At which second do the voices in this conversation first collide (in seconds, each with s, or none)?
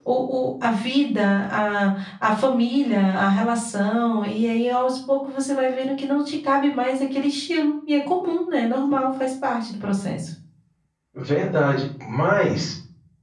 none